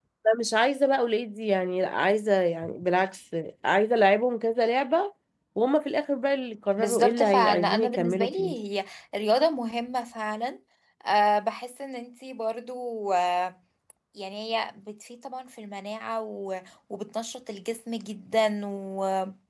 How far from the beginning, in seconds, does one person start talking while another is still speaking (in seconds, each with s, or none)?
6.8 s